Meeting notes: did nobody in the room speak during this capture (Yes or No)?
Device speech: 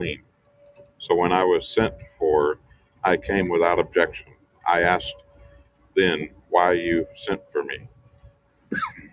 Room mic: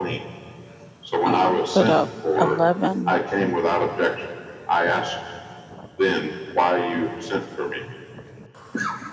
No